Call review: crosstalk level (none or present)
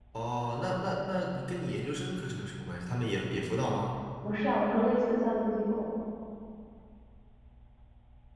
none